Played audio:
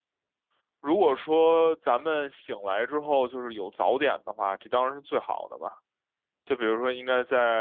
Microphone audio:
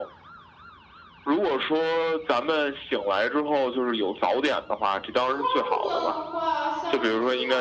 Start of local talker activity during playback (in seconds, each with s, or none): 5.1 s